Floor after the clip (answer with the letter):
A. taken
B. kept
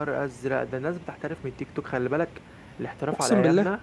B